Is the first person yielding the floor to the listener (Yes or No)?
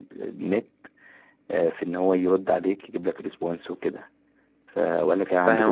Yes